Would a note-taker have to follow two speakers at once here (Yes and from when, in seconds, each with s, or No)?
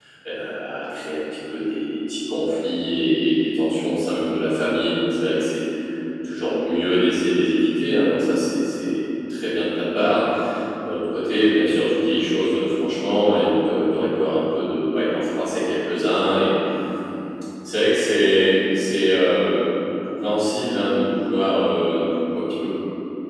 No